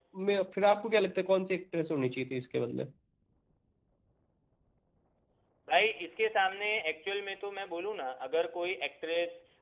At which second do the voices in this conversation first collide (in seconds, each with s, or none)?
none